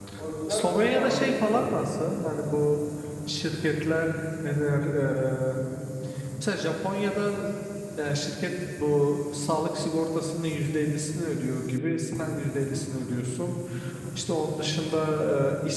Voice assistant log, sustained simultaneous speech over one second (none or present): present